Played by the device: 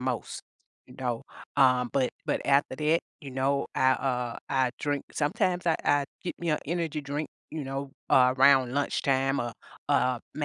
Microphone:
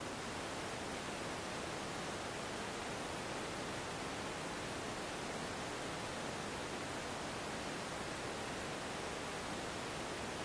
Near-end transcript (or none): none